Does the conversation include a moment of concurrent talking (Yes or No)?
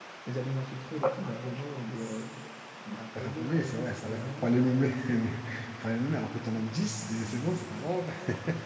Yes